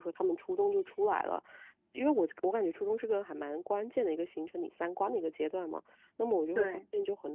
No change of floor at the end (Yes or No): Yes